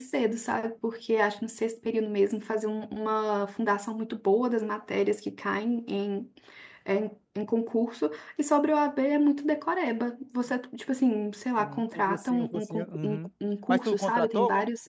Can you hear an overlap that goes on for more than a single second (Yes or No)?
Yes